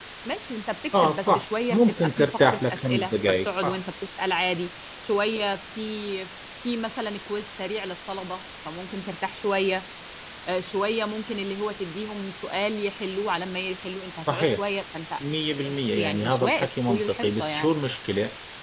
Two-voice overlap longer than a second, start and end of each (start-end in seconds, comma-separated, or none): 0.9-3.8, 15.9-17.7